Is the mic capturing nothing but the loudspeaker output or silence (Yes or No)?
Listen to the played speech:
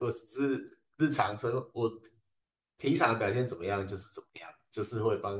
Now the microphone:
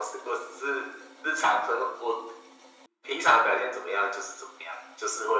Yes